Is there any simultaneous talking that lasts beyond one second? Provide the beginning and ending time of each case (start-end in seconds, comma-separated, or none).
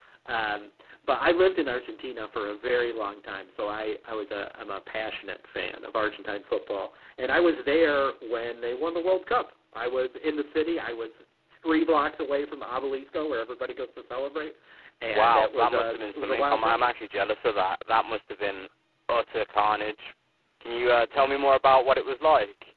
15.0-16.8